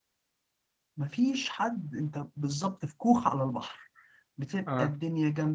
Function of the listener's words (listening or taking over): listening